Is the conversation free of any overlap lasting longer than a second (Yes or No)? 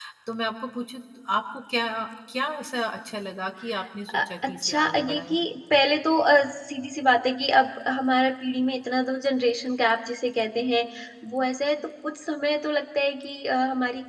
No